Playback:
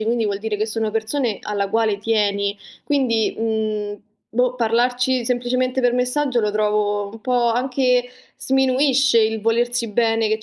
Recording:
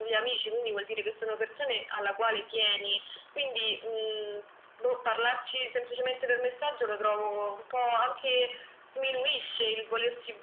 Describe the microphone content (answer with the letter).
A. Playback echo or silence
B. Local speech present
A